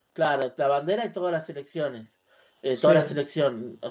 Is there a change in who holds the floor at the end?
No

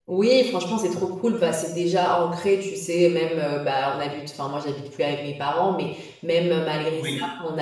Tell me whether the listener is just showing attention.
Yes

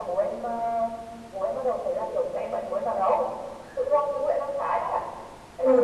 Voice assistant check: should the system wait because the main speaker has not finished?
No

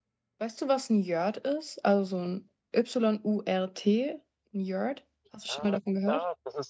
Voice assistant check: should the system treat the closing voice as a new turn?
Yes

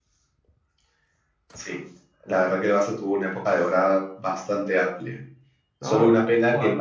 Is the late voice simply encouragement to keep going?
Yes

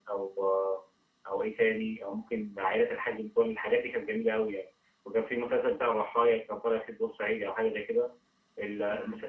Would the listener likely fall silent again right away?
Yes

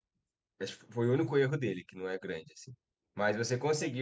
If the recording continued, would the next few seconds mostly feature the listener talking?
No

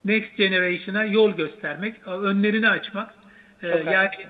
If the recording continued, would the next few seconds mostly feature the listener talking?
No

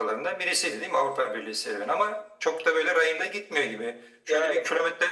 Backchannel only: Yes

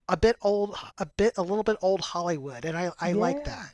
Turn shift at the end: Yes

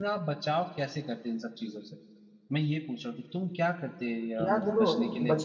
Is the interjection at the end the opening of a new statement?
Yes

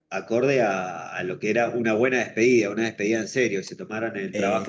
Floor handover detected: No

